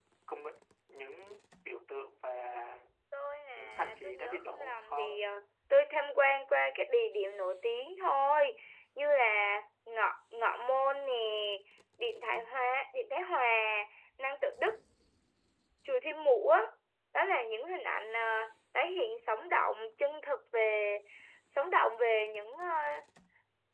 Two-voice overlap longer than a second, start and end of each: 3.5-5.2

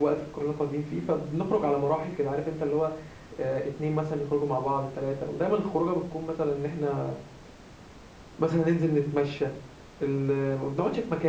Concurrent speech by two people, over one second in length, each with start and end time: none

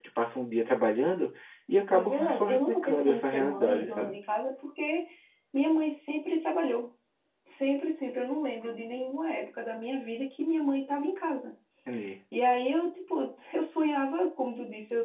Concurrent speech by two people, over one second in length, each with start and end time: 1.9-4.2

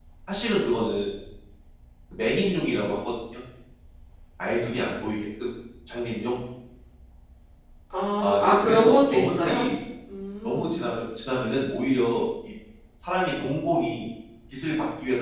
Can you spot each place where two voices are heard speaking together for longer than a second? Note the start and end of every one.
8.2-9.7

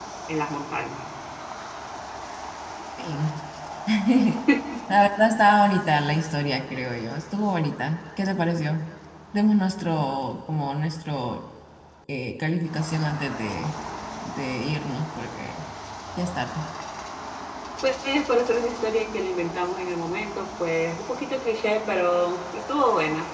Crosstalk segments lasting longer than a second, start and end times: none

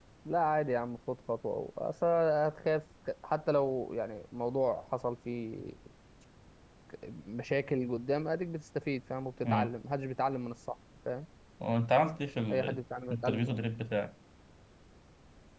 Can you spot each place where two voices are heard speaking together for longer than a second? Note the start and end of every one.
none

